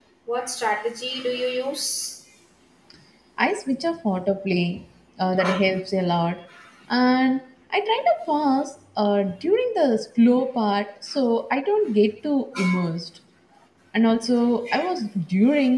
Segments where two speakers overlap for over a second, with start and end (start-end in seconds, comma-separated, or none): none